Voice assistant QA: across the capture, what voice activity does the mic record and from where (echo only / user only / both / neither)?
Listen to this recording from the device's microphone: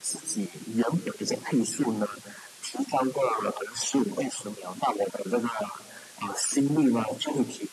echo only